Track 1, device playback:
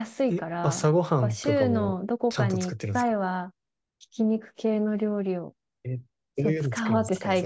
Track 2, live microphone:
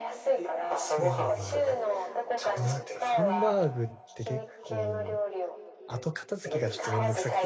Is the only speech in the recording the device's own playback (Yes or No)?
No